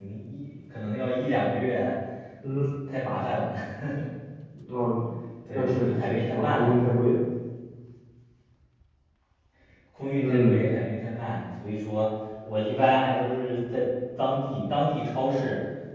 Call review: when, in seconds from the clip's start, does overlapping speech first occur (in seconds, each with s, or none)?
5.5 s